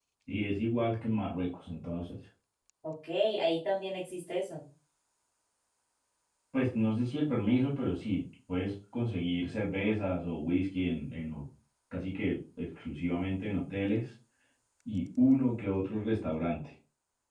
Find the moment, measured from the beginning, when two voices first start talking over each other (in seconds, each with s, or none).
none